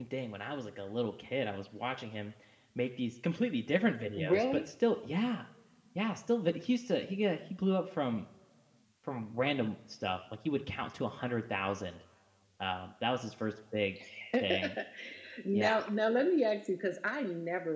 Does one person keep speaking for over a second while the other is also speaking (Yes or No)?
No